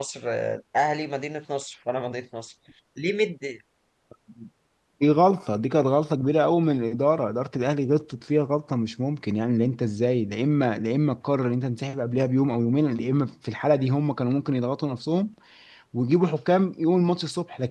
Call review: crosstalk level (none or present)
none